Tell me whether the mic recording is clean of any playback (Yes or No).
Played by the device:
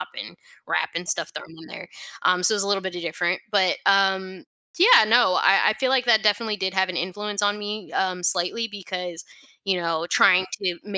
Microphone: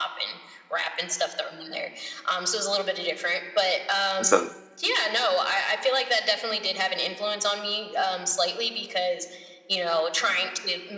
No